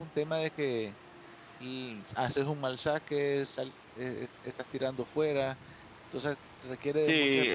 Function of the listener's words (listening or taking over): taking over